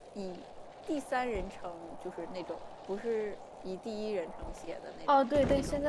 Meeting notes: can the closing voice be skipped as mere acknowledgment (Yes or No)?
No